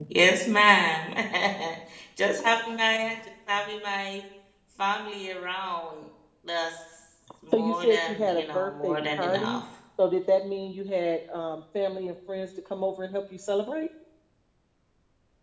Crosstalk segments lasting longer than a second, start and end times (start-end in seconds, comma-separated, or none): 7.5-9.6